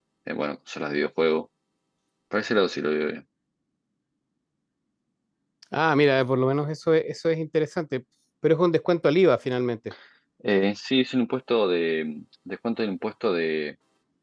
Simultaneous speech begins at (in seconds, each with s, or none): none